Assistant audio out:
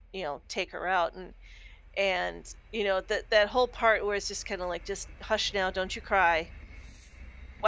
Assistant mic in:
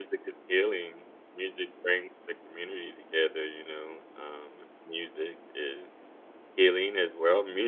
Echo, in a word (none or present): none